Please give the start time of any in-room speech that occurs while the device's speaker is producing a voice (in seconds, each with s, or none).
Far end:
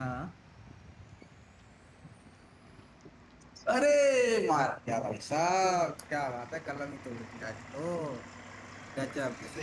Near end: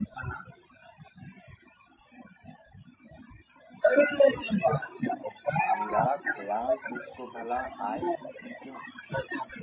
5.7 s